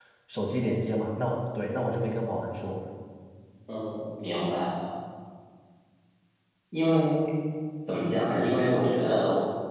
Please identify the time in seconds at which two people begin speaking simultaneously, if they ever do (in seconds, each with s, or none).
none